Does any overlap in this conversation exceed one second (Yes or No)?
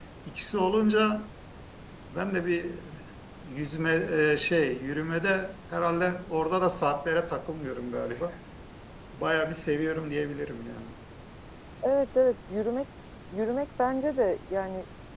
No